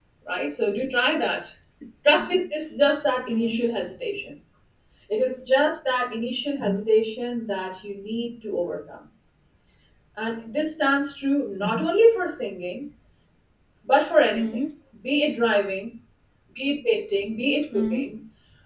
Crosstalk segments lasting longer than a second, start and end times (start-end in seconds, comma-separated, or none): none